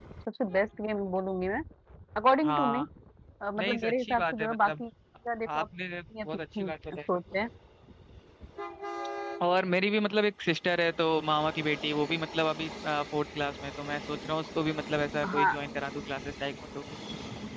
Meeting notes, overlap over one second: present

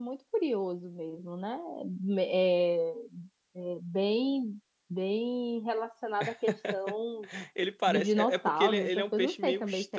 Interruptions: present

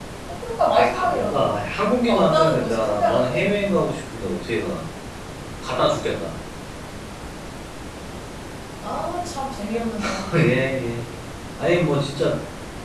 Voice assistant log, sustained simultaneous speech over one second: present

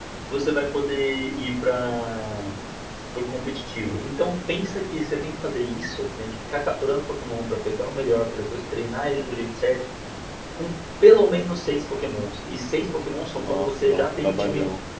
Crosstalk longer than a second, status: present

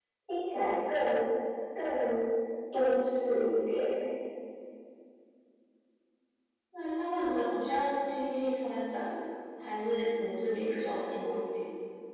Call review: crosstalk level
none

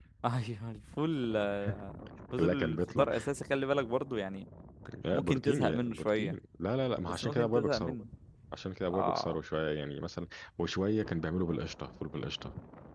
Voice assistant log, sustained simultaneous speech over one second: present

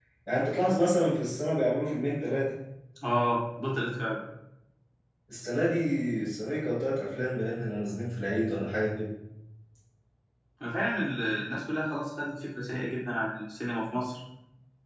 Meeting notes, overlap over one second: none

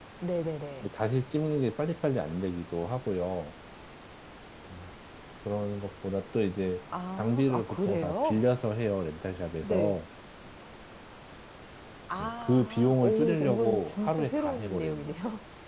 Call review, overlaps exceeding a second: present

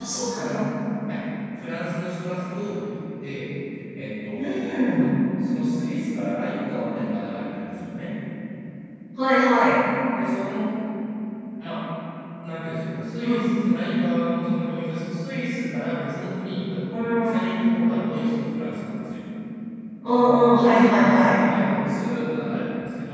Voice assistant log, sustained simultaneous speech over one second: present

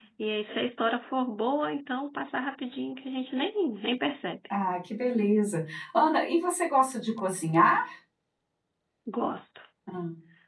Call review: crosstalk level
none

